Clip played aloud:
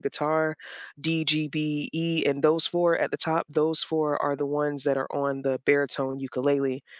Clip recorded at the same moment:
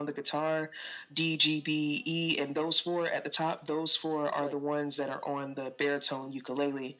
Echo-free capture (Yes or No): No